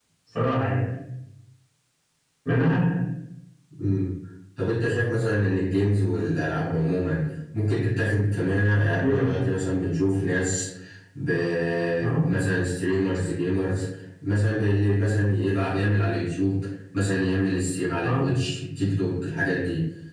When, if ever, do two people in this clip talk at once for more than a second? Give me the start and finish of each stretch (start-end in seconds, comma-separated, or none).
none